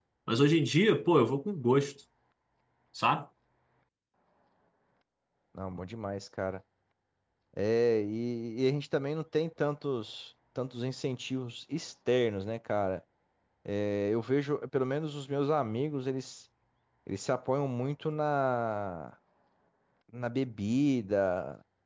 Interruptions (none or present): none